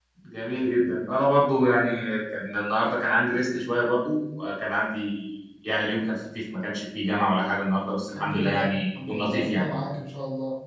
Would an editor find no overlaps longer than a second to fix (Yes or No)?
No